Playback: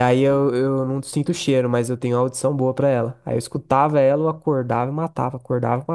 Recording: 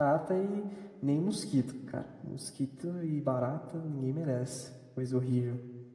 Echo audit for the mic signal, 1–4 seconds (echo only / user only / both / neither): user only